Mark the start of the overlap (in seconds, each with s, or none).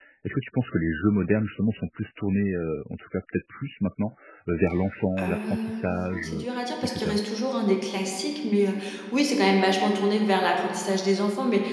5.2 s